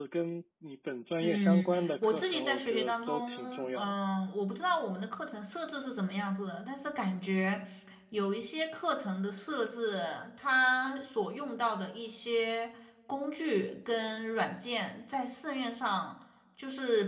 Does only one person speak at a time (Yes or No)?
No